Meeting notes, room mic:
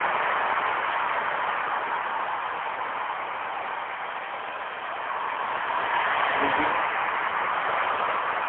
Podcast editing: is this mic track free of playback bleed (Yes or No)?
Yes